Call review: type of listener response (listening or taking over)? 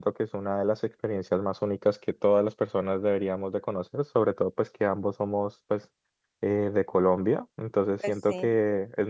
listening